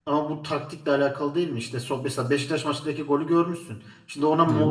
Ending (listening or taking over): listening